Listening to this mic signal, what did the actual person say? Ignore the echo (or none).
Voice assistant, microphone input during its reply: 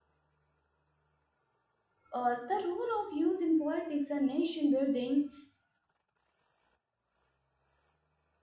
Uh, the role of youth in politics and nation building